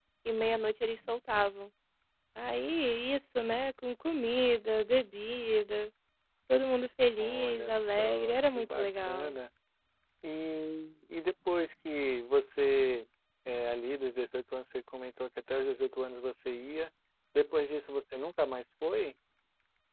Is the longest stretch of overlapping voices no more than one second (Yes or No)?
No